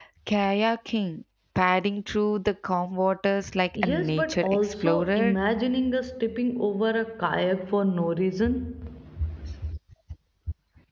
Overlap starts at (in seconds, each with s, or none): 3.8 s